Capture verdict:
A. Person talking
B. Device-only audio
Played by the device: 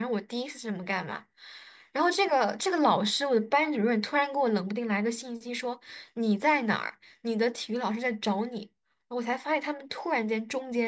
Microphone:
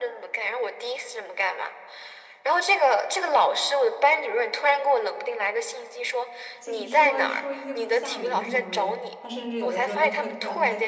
A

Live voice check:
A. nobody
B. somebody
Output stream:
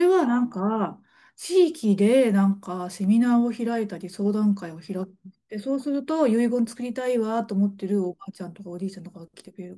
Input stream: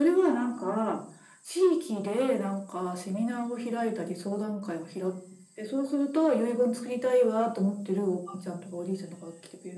A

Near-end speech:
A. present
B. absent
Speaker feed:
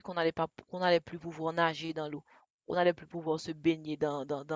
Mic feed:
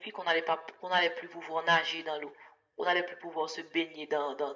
B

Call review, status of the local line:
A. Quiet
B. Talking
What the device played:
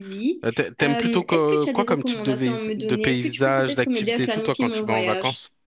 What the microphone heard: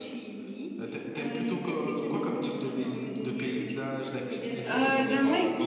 B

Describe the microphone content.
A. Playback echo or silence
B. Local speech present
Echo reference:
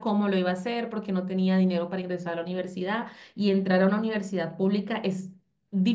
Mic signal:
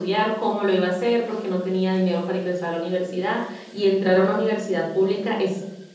A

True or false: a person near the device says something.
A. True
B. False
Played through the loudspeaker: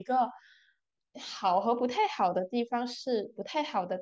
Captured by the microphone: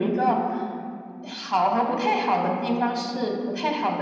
B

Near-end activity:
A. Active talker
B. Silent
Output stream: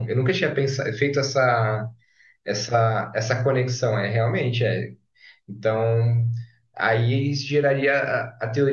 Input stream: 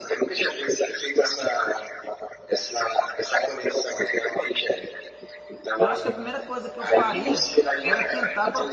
A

